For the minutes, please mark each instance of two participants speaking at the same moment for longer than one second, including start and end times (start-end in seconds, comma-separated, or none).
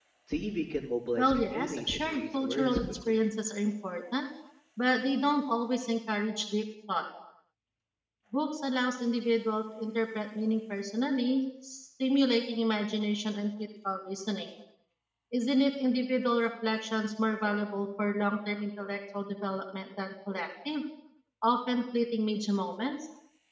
1.2-3.2